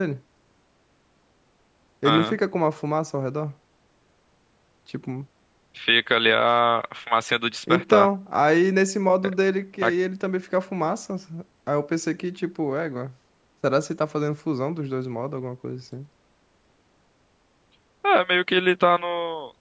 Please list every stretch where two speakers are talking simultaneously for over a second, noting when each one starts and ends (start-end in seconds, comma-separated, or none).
none